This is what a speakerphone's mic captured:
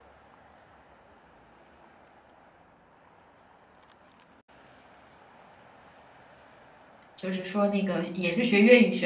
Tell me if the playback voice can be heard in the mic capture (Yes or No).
No